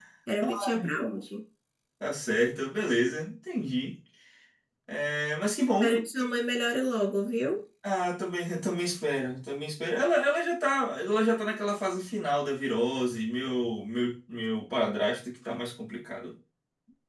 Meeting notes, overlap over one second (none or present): none